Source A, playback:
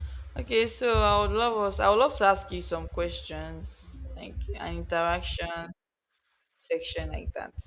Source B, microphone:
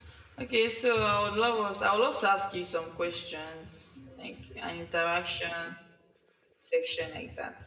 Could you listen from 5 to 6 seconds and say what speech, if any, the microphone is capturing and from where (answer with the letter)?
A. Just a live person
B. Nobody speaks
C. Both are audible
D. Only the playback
D